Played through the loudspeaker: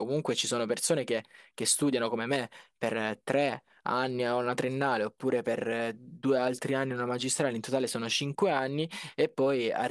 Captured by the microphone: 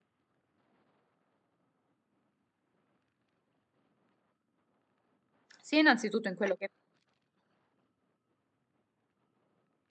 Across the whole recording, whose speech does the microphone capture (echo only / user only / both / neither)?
user only